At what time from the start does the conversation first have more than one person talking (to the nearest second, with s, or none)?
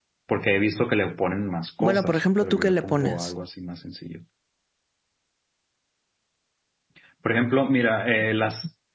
2 s